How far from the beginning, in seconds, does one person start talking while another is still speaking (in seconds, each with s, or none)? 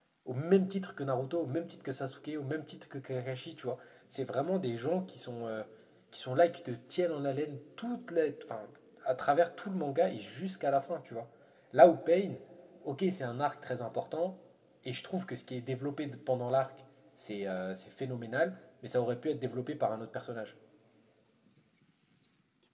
none